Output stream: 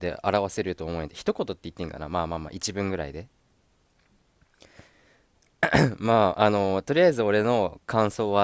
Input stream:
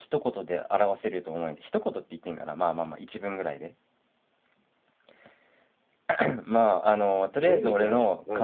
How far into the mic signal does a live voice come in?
7.4 s

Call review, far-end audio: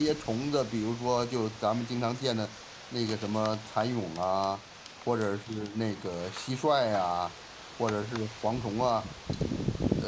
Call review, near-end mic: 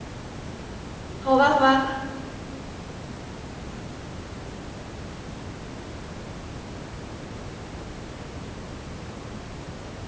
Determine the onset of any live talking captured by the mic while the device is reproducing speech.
1.2 s

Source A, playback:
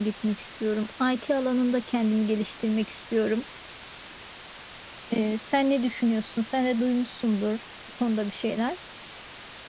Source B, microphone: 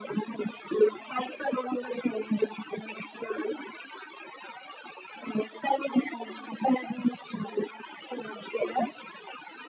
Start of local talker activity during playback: none

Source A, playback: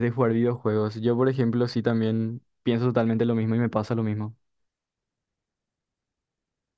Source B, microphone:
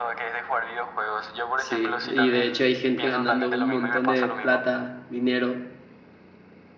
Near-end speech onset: 1.6 s

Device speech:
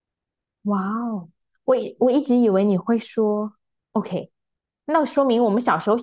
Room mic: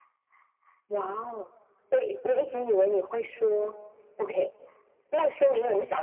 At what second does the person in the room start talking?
none

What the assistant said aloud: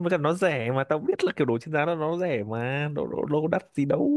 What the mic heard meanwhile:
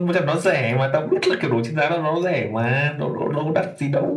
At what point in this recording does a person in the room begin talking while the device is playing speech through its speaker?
none

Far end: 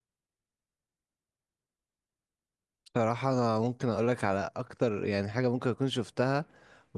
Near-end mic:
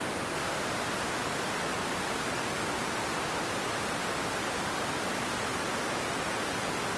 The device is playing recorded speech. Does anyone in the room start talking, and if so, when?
none

